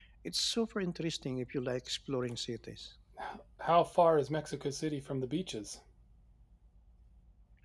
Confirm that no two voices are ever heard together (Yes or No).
Yes